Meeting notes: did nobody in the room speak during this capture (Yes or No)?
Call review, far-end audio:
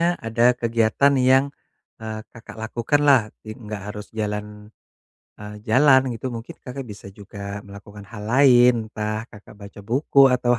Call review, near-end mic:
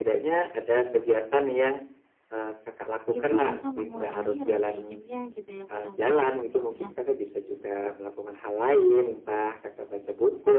No